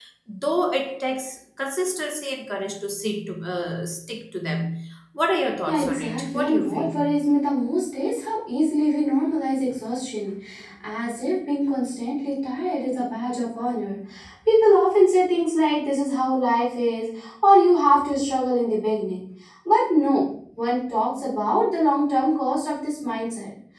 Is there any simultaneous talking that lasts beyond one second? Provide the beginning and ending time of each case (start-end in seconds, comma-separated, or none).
5.7-7.0